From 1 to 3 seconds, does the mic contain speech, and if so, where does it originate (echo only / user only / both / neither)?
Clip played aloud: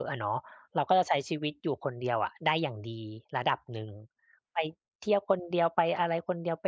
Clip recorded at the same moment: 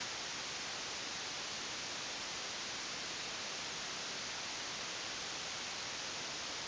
neither